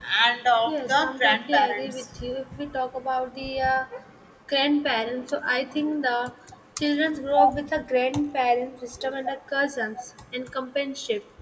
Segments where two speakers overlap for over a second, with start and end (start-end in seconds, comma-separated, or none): 0.7-2.0